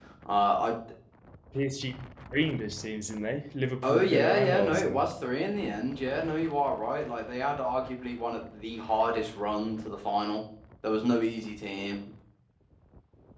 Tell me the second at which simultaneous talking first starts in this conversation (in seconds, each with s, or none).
3.8 s